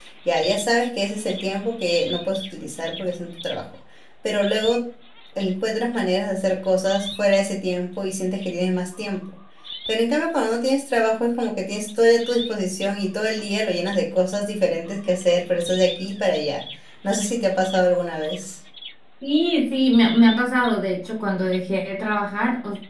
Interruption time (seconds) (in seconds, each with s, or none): none